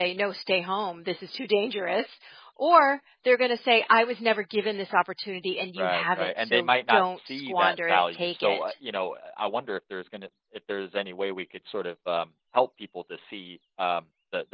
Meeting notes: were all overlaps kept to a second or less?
No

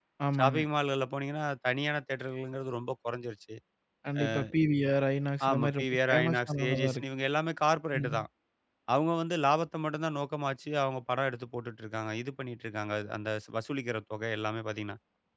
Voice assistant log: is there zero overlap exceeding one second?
No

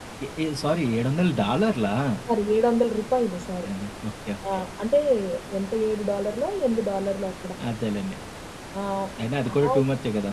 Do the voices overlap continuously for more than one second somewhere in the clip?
No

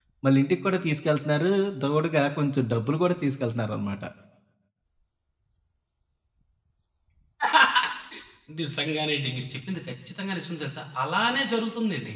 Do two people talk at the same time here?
No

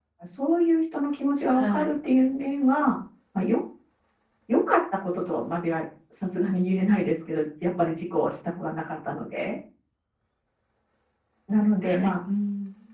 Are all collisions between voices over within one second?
Yes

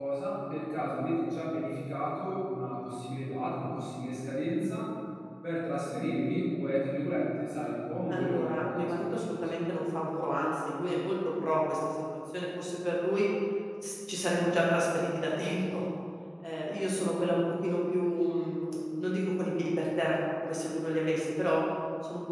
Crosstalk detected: Yes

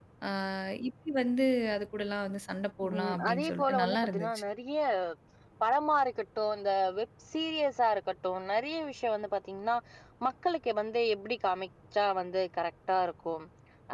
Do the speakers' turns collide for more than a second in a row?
Yes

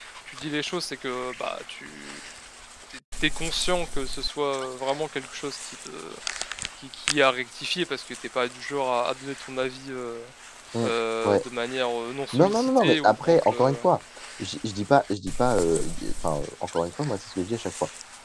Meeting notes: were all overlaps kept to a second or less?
No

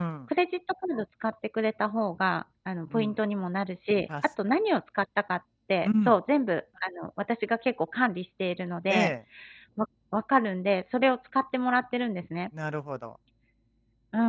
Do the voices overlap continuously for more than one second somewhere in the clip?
No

